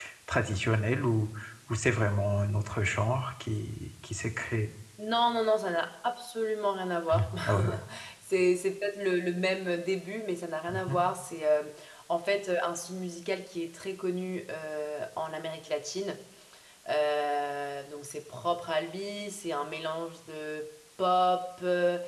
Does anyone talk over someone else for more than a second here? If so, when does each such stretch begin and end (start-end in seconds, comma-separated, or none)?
none